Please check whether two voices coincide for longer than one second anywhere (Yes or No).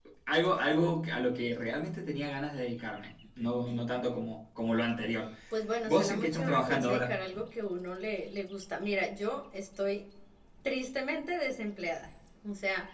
Yes